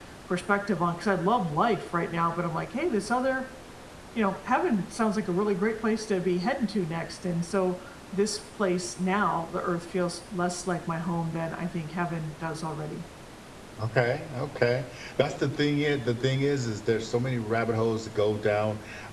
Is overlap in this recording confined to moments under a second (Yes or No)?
Yes